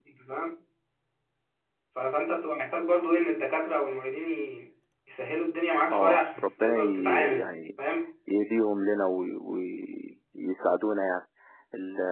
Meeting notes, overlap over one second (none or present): present